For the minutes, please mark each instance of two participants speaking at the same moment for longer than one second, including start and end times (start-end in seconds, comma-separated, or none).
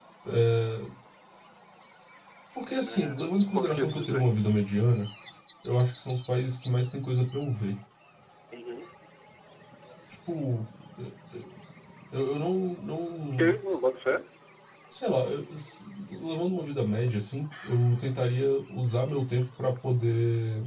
2.8-4.5